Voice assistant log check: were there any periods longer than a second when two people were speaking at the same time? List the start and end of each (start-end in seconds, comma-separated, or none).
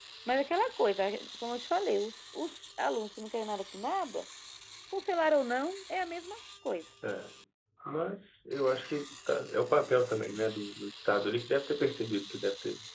none